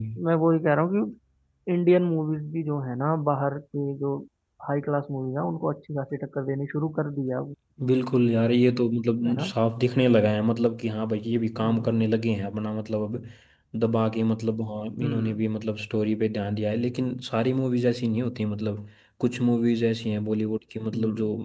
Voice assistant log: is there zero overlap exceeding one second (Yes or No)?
Yes